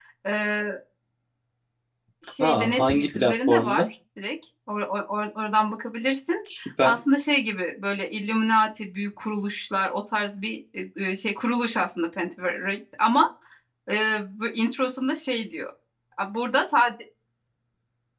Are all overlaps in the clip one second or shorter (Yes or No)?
No